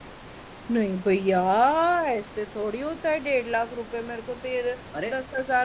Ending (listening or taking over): listening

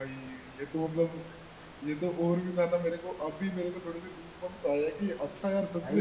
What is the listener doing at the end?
listening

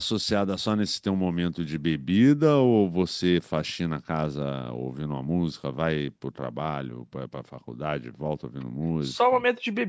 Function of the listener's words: taking over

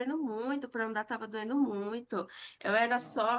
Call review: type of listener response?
listening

